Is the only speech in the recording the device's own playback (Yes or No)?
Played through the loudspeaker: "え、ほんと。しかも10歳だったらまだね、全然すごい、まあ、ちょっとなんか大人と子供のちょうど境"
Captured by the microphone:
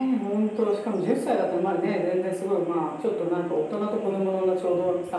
Yes